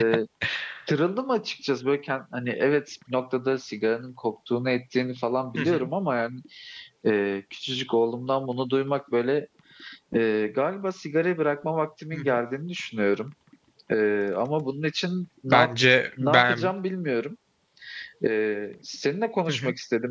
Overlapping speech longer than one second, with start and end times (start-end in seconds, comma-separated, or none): none